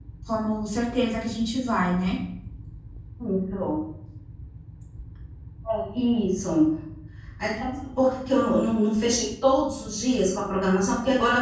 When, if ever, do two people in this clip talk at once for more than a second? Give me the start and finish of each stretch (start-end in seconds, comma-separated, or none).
none